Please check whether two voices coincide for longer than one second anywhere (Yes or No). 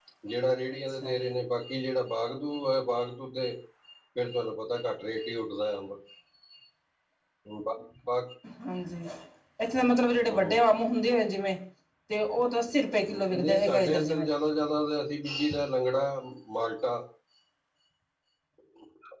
Yes